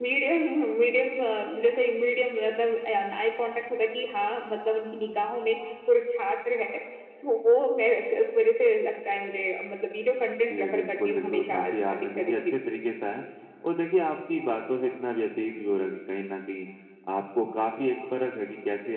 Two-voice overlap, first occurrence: 11 s

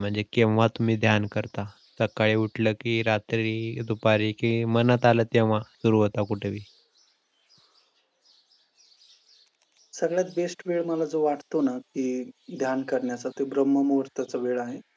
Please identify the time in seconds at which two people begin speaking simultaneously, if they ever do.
none

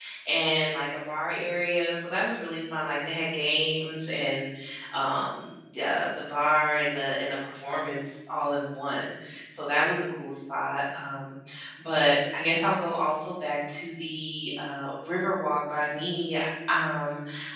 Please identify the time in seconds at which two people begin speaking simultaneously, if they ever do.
none

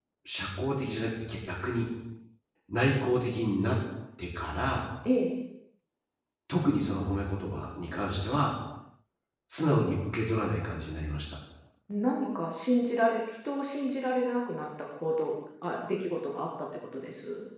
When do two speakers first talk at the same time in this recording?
none

